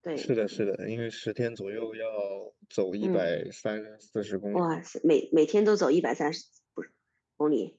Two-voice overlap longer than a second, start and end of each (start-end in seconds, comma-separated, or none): none